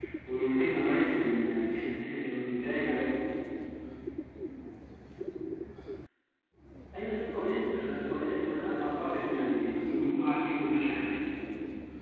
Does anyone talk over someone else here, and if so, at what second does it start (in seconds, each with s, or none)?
7.7 s